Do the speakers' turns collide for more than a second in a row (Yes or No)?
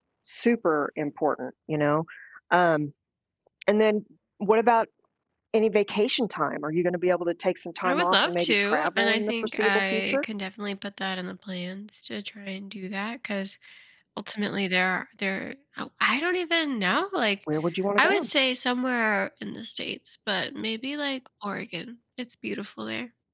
Yes